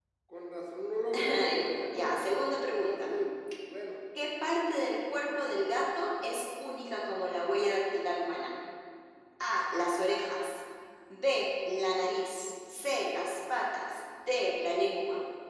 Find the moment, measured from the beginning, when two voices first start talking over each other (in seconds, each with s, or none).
1.1 s